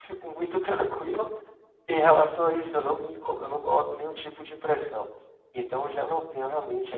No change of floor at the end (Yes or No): No